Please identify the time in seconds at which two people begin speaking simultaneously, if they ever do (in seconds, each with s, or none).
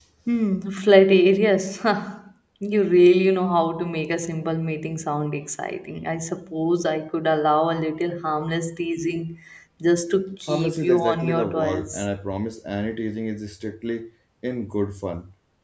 10.5 s